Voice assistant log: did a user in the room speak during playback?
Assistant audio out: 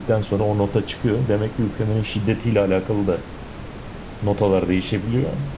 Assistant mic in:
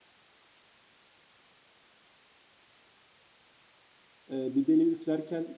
Yes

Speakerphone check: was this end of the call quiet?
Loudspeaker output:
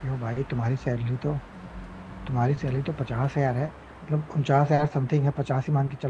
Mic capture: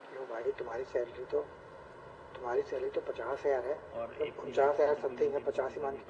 No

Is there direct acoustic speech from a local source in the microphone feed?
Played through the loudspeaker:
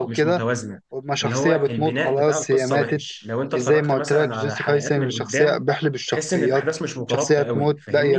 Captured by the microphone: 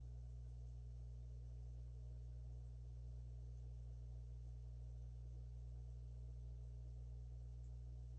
No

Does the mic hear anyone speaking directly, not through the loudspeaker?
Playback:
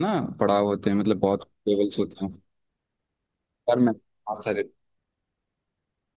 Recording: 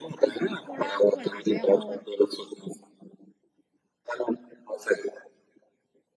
Yes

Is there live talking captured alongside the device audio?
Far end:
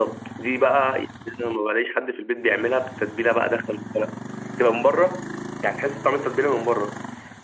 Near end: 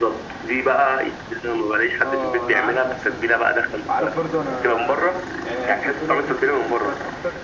Yes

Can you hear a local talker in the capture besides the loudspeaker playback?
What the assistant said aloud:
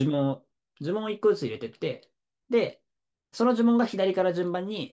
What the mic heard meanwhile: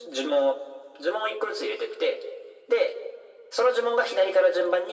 No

